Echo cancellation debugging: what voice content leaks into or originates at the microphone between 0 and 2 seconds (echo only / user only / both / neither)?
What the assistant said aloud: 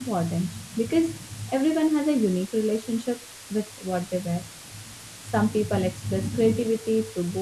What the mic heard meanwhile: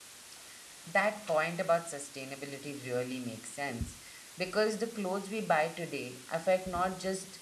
user only